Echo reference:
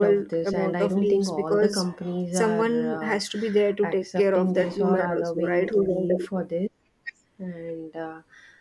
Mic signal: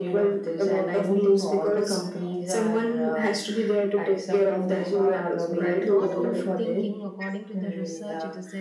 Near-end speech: present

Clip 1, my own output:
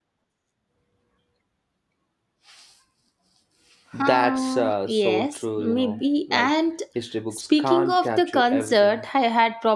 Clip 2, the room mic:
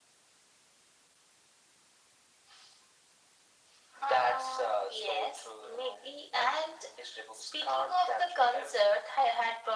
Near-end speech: none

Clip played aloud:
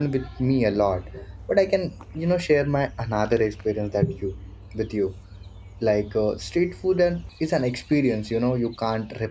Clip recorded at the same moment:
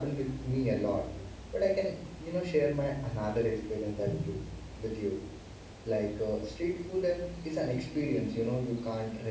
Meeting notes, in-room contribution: none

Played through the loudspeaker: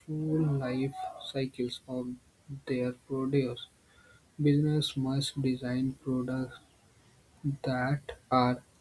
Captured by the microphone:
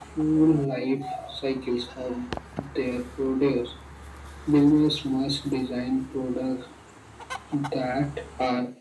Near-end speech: none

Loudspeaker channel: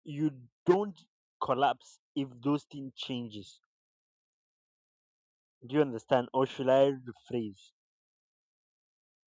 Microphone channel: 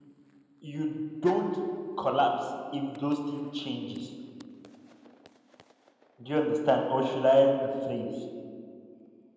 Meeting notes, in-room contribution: none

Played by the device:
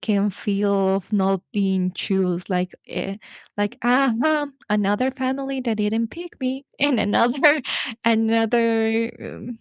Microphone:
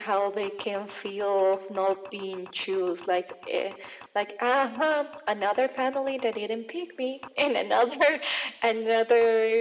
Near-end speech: none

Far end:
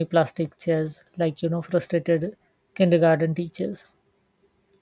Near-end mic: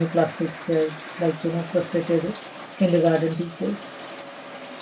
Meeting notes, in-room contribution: none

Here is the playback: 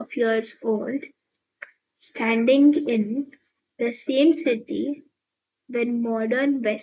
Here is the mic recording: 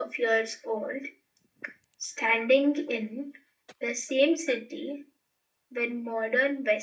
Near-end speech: none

